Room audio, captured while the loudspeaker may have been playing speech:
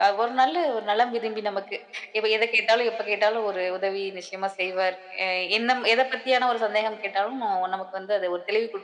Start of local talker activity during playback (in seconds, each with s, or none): none